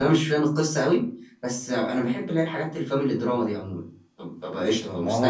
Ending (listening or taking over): taking over